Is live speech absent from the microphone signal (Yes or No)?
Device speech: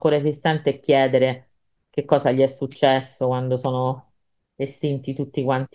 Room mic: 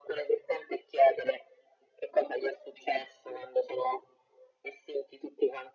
Yes